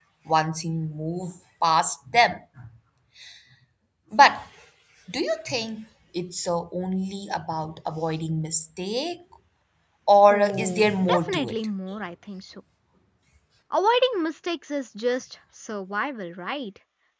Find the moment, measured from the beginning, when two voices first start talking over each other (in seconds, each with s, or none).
10.3 s